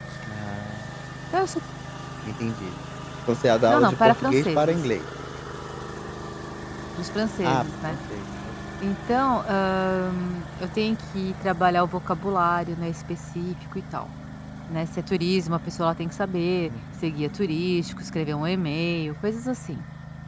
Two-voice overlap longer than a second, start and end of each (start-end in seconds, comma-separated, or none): 3.7-4.9